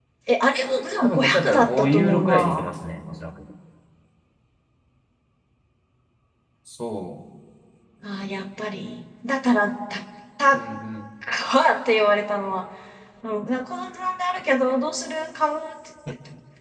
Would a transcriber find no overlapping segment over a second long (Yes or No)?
No